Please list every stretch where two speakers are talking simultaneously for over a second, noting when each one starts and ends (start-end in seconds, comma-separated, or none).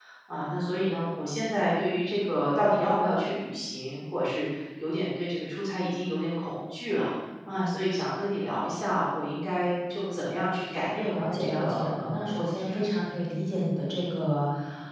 11.1-12.8